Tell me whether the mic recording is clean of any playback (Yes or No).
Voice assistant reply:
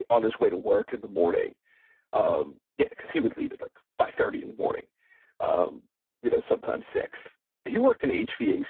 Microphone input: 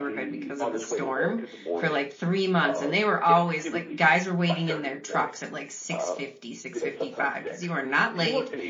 No